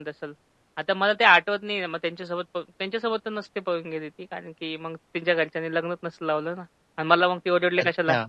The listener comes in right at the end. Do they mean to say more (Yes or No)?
Yes